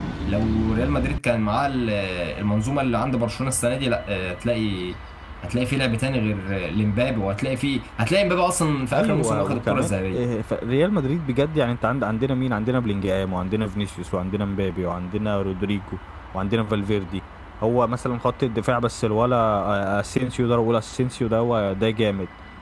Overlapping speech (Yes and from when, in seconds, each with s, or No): Yes, from 8.9 s